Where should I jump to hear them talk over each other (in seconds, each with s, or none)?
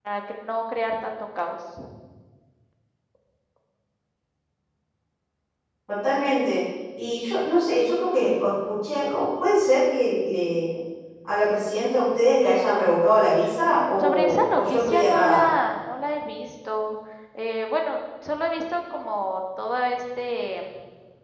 13.6 s